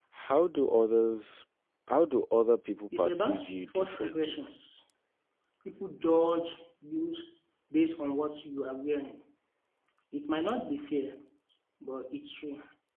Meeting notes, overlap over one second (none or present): present